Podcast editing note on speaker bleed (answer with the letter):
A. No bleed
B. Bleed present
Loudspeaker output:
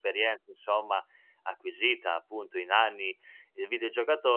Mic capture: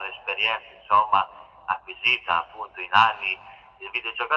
B